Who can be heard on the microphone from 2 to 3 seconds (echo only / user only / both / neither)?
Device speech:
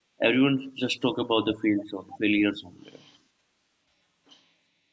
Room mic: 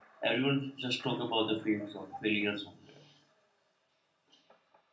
echo only